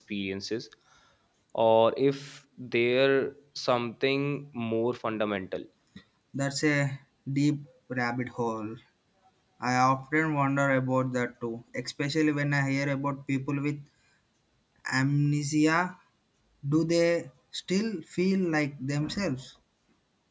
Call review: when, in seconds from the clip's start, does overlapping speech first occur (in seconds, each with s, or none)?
none